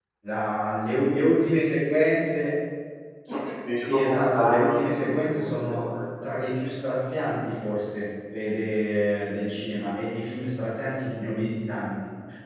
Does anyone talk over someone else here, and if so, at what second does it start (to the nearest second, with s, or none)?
4 s